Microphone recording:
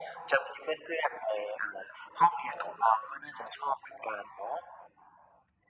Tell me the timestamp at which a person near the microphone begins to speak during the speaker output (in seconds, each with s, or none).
none